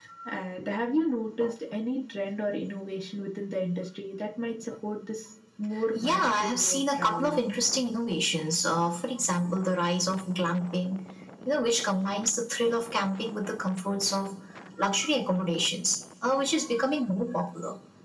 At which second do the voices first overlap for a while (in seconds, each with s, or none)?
5.8 s